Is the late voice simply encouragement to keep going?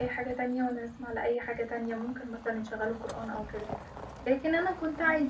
Yes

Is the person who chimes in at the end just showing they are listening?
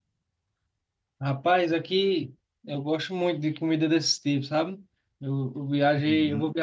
Yes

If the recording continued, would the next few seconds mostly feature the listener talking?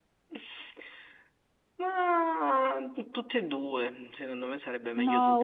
Yes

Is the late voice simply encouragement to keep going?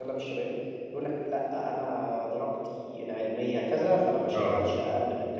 Yes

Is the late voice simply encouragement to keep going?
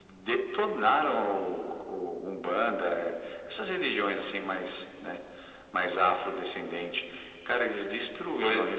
Yes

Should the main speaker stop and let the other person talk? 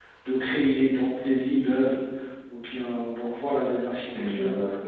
Yes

